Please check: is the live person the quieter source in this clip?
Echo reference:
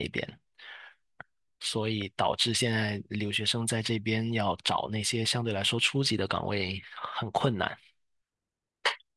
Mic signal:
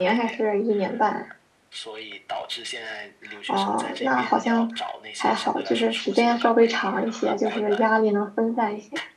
No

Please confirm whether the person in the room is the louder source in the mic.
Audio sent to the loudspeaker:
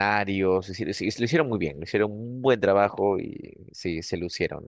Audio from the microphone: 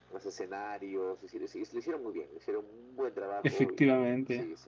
Yes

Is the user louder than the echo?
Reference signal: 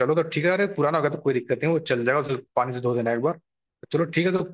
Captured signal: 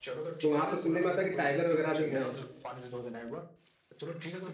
Yes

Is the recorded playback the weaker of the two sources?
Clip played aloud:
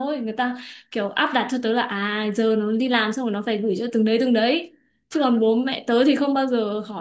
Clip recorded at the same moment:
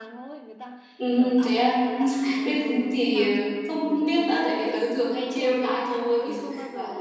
Yes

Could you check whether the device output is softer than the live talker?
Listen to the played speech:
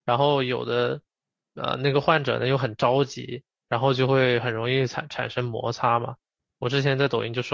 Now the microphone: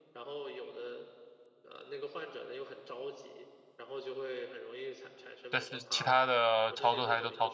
Yes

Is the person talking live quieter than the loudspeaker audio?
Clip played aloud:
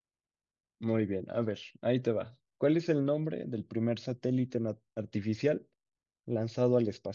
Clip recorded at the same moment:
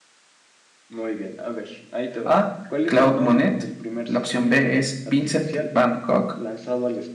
No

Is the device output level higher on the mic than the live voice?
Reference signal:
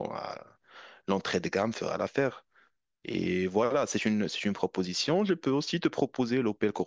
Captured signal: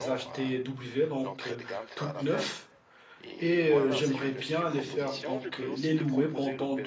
No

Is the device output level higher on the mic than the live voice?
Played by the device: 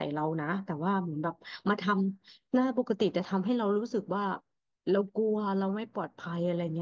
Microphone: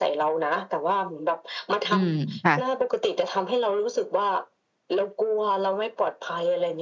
No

